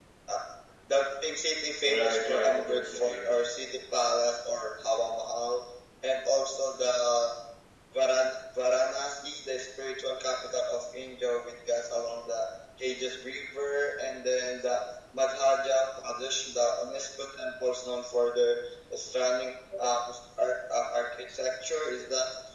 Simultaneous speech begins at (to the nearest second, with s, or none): 2 s